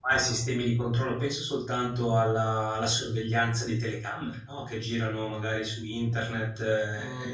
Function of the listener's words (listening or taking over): taking over